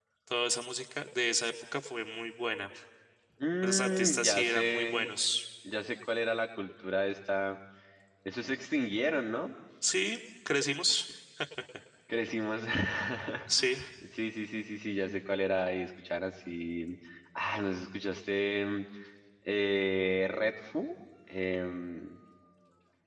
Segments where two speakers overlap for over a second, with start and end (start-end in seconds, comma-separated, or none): 3.6-5.1